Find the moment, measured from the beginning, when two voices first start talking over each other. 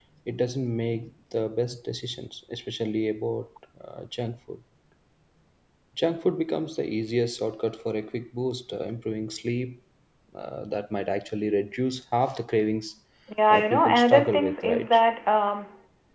13.5 s

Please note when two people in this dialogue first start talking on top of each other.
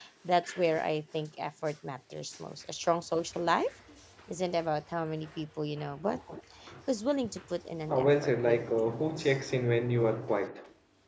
7.9 s

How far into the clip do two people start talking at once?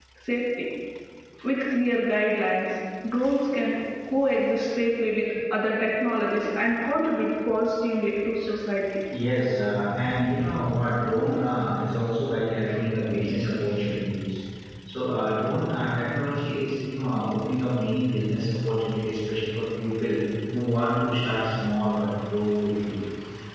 none

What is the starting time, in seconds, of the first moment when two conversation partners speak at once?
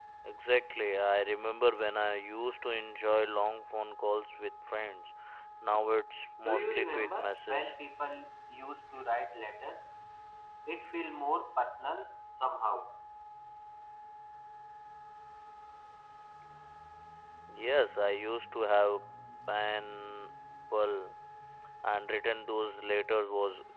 6.5 s

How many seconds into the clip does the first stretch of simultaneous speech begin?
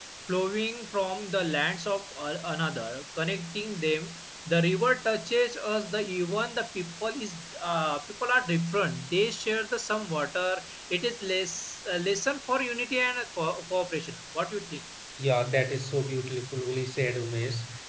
none

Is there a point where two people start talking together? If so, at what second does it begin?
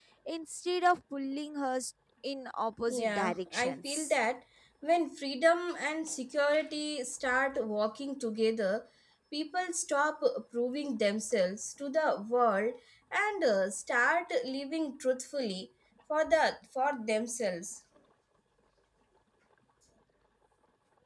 2.9 s

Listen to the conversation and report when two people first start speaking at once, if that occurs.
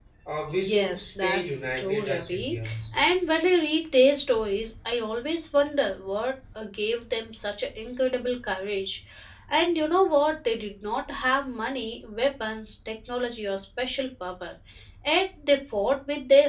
0.7 s

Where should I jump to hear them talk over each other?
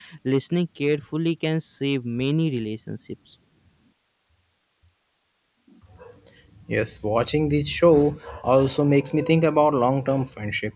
none

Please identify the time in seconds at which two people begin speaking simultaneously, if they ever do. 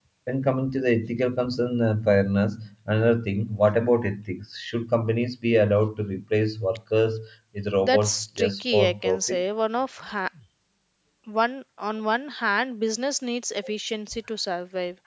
7.8 s

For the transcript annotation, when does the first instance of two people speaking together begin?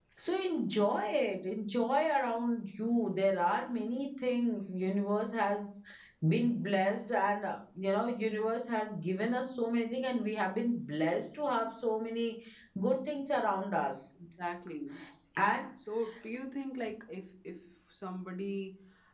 none

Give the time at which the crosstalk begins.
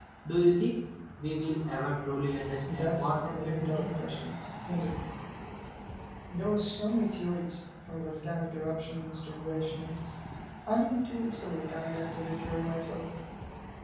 2.6 s

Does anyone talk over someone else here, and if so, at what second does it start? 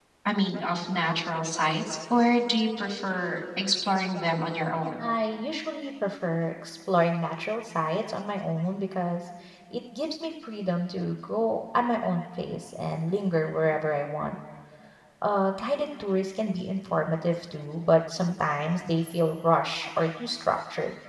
none

